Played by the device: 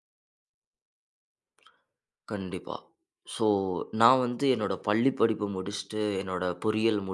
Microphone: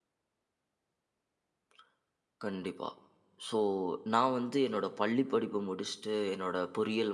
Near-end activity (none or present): none